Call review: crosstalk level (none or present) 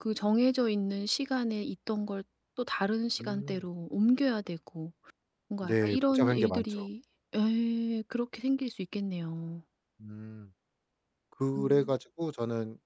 present